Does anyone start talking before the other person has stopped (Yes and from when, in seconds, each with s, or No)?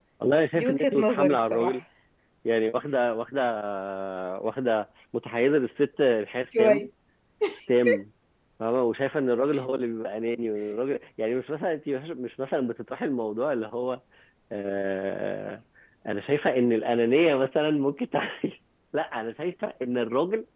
Yes, from 0.6 s